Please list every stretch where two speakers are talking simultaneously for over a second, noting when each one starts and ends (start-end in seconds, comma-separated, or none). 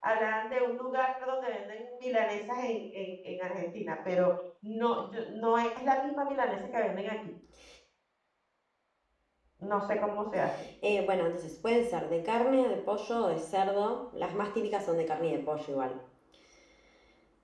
none